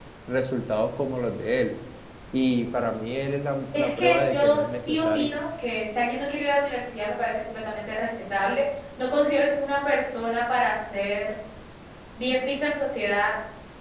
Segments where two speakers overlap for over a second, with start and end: 3.7-5.3

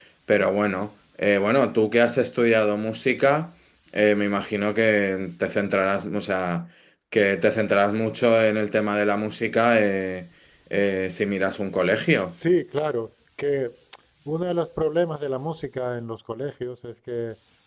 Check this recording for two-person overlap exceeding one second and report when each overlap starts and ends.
none

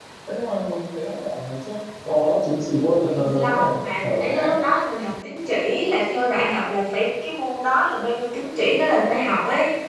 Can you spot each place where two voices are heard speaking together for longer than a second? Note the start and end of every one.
3.1-4.5

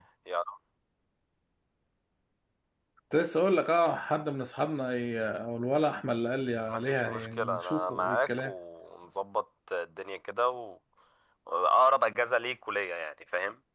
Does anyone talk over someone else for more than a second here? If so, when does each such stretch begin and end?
6.7-8.5

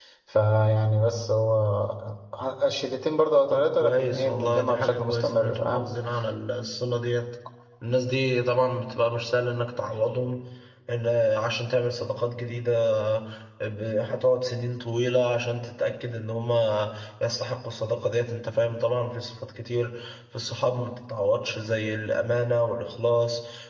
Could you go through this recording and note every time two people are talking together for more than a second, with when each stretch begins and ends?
3.5-5.9

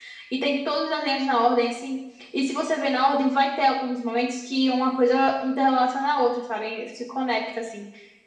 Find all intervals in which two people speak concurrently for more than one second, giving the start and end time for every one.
none

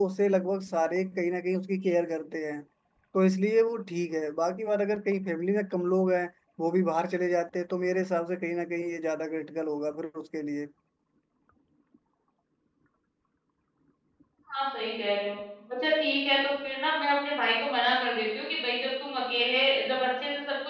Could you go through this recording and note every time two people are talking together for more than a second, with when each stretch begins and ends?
none

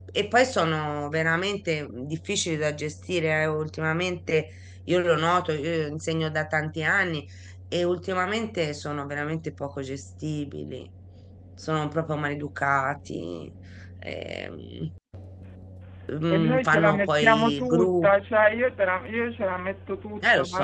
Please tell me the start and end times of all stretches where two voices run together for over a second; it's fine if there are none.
16.3-18.1

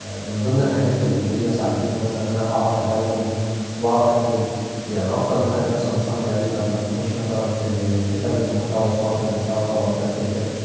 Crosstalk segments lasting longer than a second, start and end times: none

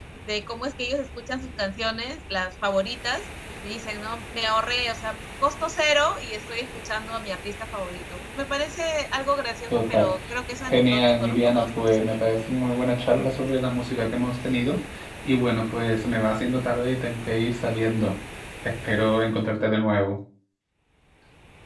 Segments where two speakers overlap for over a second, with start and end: 10.6-12.2

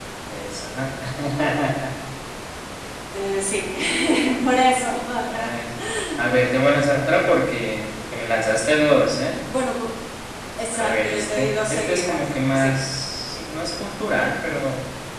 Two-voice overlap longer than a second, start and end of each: 10.7-12.8

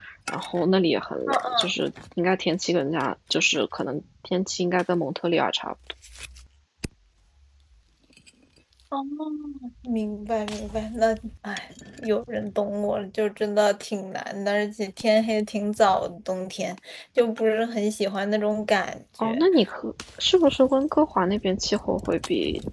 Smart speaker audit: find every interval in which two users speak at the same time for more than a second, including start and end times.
none

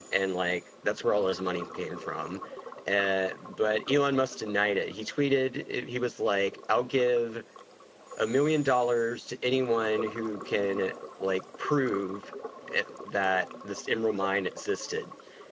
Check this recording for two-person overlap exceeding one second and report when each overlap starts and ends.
none

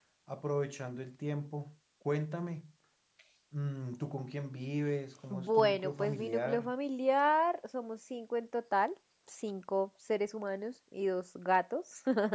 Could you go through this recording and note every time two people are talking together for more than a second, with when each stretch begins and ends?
5.3-6.7

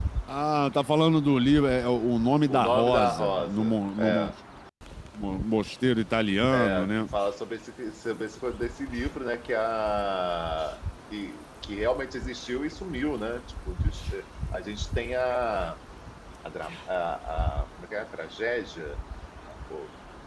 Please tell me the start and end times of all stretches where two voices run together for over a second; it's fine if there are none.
2.5-4.3

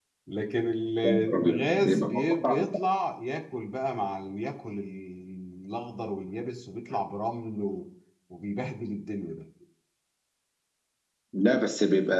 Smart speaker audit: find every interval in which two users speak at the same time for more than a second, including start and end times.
1.0-2.6

